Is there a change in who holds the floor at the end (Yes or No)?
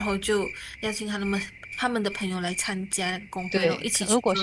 Yes